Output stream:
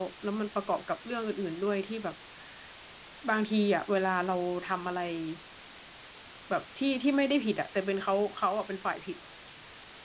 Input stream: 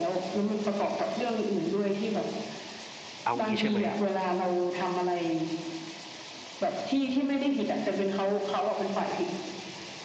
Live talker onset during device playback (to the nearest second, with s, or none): 3 s